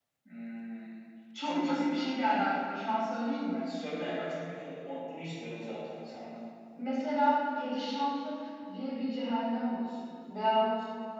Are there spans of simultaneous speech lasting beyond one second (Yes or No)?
No